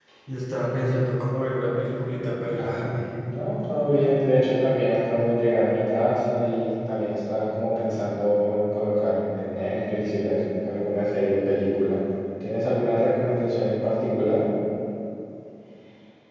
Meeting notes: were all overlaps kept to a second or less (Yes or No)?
Yes